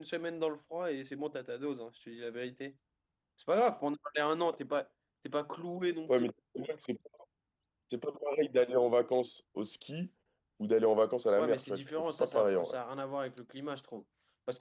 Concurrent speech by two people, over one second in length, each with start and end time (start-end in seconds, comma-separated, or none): 11.4-12.8